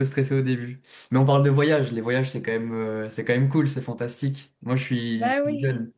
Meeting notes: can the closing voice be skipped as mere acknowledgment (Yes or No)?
Yes